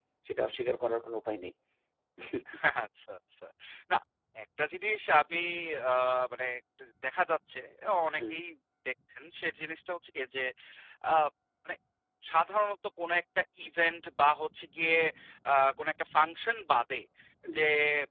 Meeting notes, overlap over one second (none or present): none